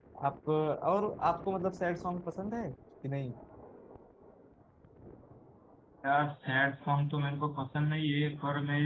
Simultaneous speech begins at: none

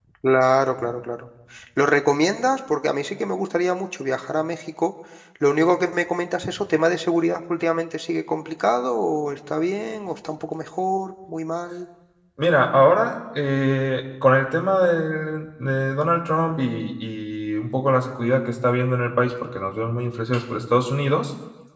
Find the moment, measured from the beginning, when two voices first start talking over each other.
none

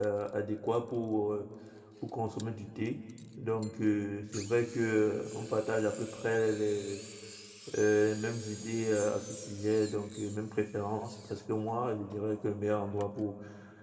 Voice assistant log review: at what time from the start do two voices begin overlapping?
none

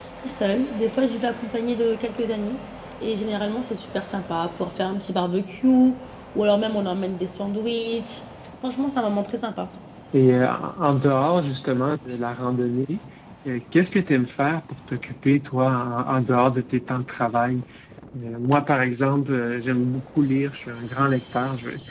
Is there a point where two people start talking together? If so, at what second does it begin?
none

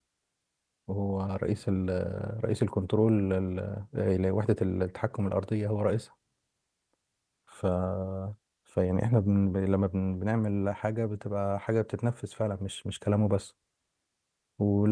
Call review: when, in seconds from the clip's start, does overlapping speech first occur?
none

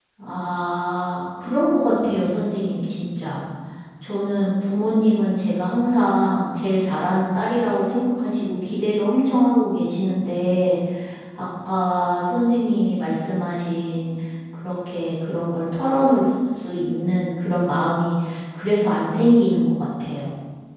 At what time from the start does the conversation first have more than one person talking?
none

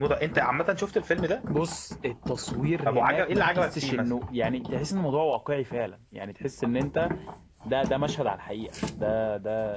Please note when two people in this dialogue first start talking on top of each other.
2.8 s

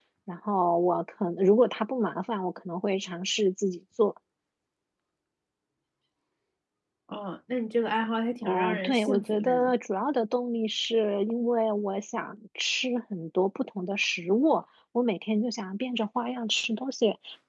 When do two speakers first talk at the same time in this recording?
8.4 s

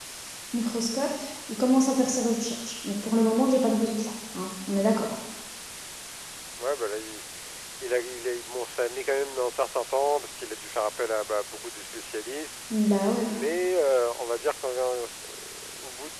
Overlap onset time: none

